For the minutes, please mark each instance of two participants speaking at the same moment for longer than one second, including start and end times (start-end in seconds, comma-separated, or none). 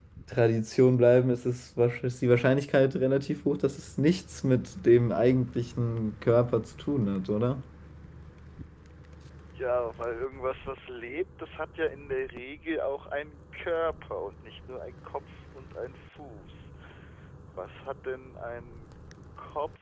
none